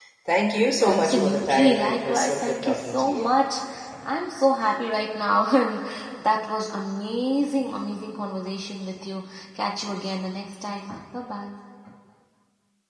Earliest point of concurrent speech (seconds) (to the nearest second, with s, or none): 1 s